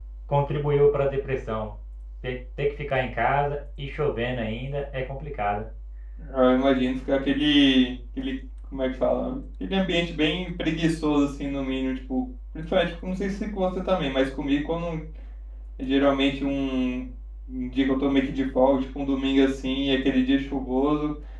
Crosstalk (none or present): none